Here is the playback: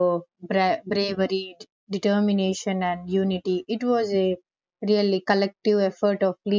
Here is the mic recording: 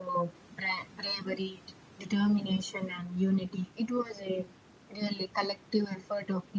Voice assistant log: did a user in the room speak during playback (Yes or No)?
No